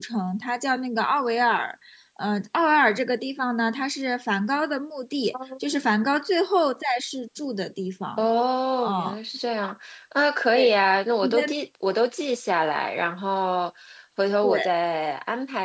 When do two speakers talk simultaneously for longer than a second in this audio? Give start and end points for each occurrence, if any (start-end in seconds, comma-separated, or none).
none